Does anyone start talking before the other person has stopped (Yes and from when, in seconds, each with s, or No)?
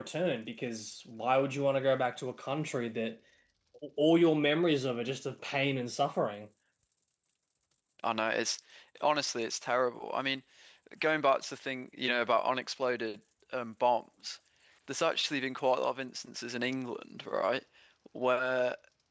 No